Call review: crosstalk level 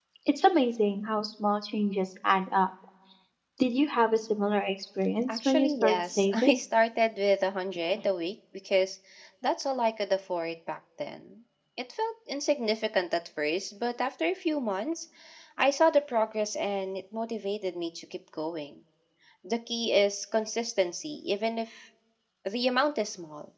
present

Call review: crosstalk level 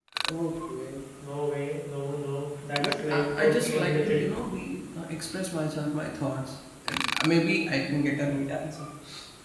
present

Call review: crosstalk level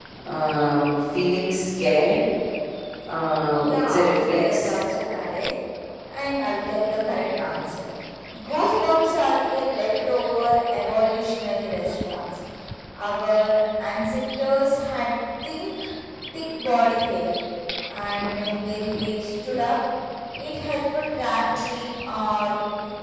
present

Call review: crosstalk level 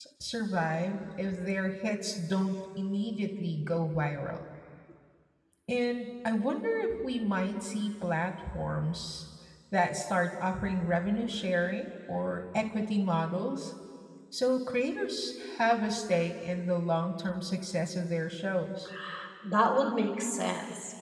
none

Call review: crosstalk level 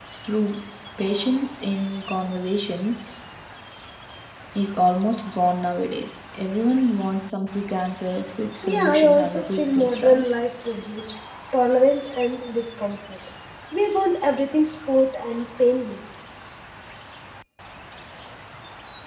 present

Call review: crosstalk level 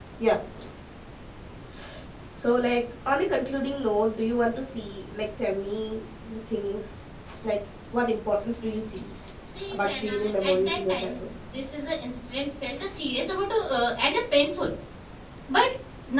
present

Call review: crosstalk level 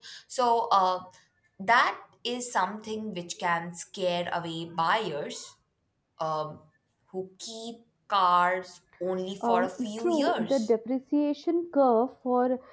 present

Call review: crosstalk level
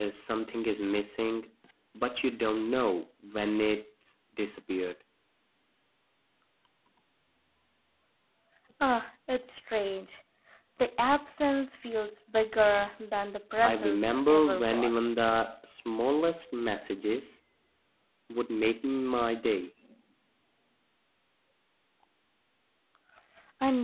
present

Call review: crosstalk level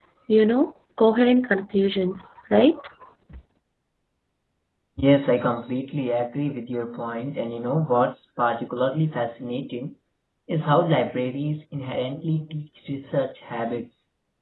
none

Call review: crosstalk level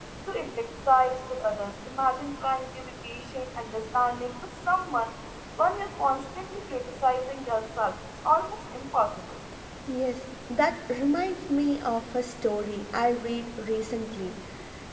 none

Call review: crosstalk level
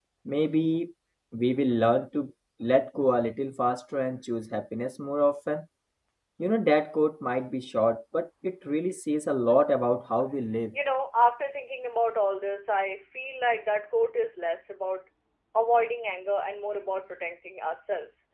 none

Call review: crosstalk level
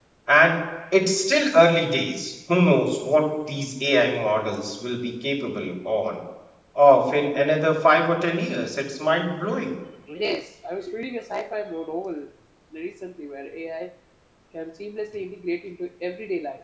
none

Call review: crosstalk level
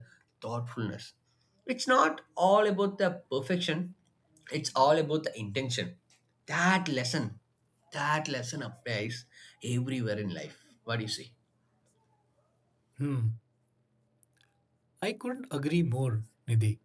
none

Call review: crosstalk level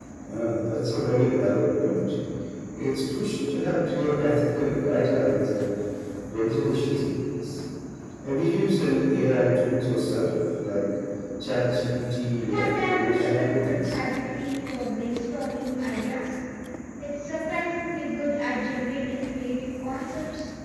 present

